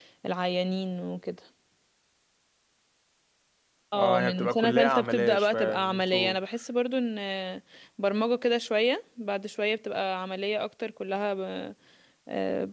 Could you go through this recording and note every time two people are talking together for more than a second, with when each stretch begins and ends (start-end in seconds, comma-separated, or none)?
3.9-6.4